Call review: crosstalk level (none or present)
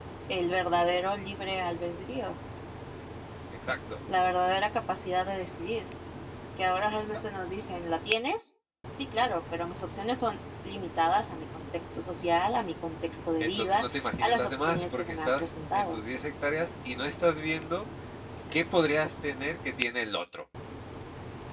present